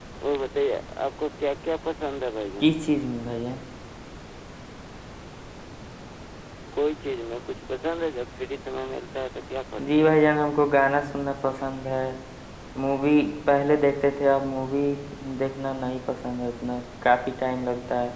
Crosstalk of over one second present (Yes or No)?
No